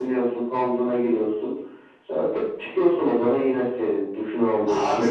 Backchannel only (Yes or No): No